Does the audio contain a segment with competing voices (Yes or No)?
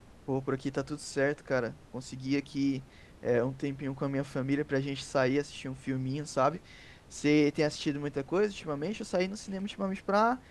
No